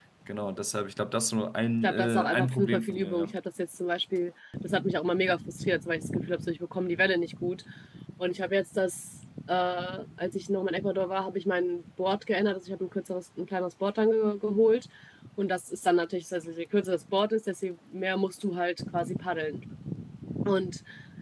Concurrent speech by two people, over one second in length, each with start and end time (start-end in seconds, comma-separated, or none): 1.8-3.4